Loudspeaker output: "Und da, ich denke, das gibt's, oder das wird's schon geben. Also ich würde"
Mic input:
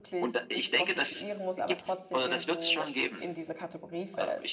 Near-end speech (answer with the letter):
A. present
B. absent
A